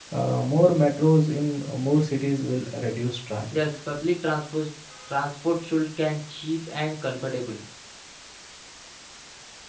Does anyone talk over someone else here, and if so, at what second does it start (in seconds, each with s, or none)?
none